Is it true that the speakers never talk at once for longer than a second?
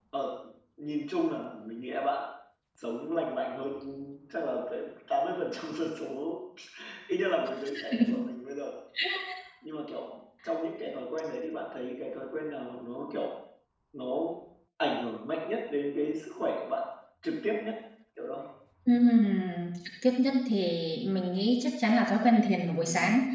Yes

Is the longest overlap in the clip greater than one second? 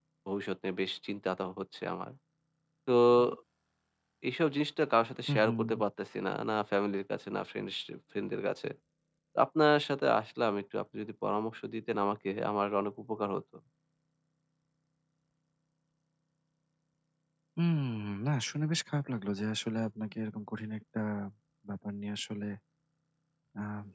No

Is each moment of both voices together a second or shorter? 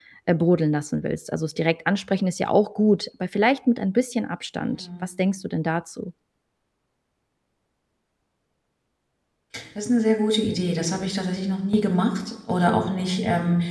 Yes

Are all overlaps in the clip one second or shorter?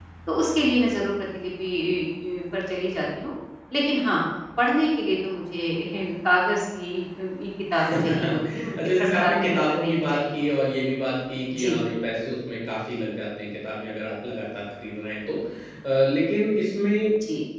No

